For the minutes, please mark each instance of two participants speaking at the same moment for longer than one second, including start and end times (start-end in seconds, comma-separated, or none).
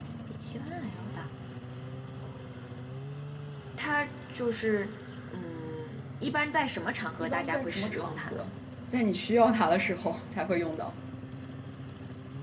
7.2-8.4